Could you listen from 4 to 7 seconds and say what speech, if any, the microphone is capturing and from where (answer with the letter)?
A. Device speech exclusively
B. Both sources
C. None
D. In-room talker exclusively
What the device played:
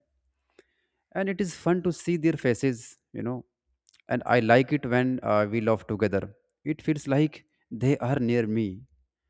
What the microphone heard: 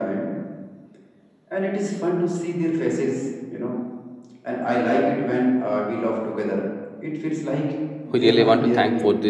A